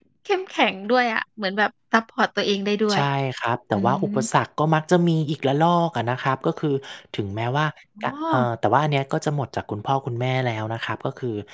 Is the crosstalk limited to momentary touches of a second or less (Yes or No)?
Yes